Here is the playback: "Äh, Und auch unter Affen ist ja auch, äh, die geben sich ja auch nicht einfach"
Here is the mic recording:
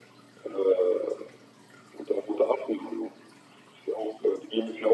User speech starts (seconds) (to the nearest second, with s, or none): none